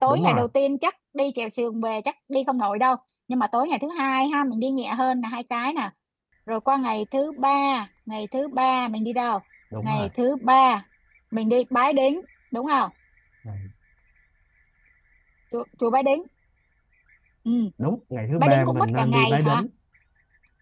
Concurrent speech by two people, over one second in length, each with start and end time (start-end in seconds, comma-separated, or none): 18.4-19.6